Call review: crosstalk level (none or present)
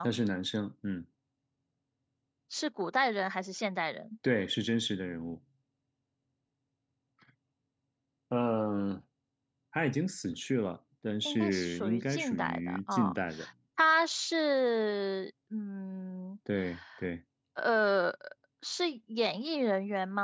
present